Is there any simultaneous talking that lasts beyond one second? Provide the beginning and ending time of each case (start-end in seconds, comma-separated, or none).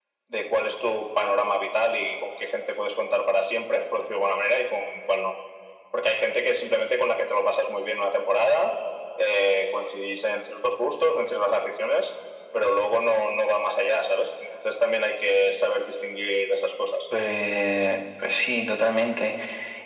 none